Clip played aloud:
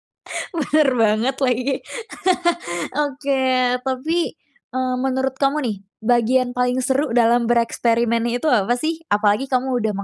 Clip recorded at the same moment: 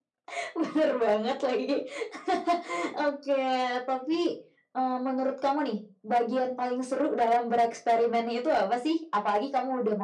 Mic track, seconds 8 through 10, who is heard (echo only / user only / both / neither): echo only